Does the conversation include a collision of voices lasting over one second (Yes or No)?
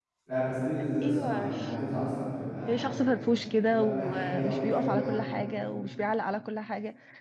Yes